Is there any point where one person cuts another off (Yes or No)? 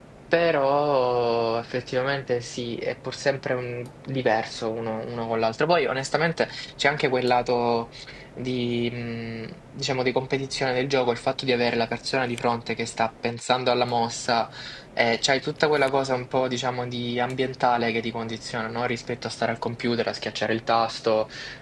No